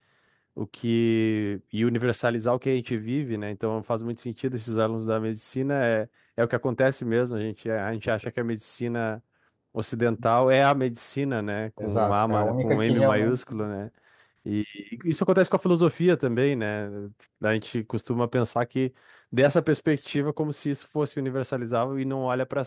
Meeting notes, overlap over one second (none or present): present